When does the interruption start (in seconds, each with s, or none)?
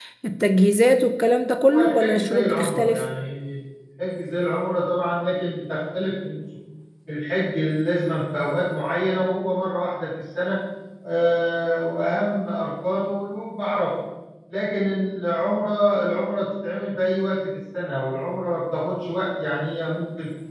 1.6 s